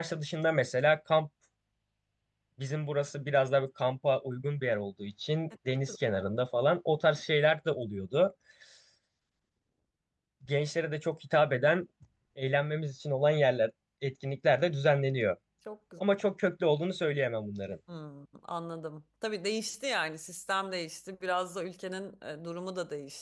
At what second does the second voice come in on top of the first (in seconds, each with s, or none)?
none